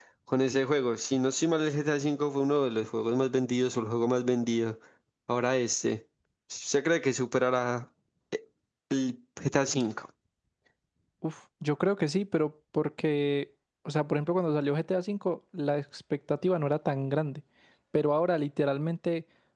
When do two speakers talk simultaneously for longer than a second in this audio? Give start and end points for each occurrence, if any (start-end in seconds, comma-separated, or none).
none